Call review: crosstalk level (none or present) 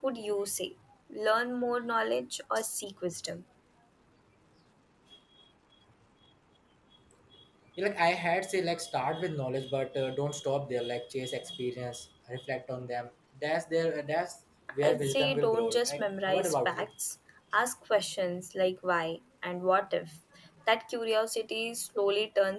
present